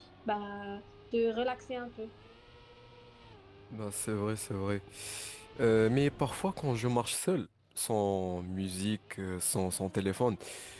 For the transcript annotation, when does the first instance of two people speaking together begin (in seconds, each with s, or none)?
none